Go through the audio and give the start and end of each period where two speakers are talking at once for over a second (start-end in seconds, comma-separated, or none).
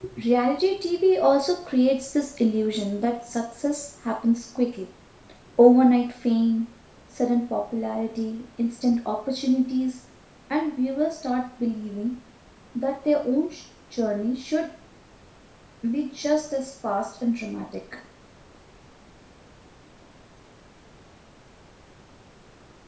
none